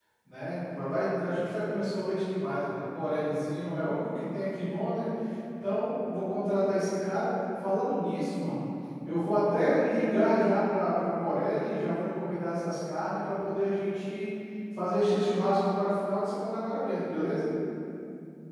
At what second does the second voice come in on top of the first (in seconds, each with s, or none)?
none